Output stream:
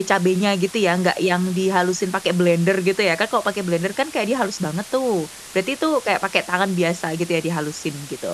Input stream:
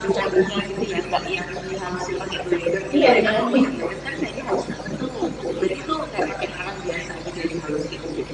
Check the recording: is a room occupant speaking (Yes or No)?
Yes